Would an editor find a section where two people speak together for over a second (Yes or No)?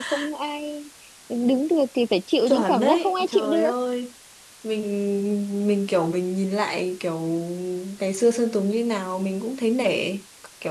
Yes